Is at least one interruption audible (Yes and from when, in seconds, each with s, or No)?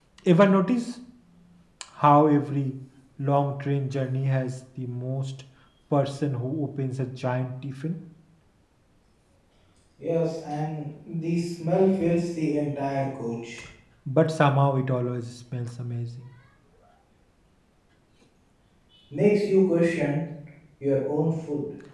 No